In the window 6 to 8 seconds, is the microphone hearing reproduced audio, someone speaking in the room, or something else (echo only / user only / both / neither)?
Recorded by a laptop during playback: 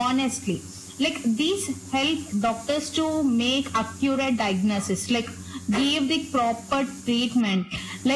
echo only